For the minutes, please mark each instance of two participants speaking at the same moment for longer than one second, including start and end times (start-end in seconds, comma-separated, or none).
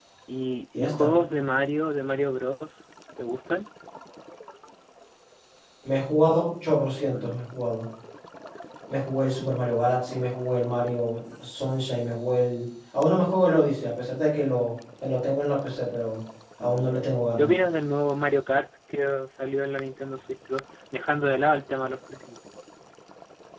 none